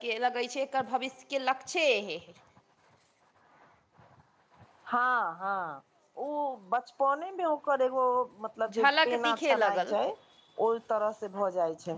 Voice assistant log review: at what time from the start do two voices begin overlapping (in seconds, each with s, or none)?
8.7 s